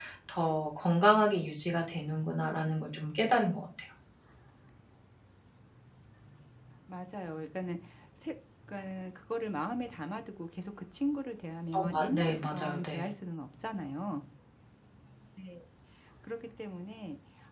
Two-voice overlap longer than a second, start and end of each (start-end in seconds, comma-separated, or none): 11.8-13.1